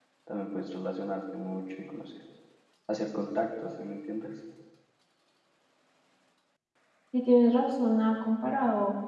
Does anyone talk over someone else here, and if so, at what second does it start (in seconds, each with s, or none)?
none